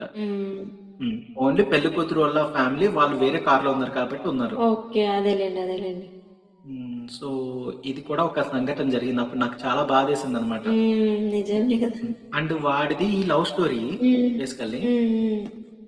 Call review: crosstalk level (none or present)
none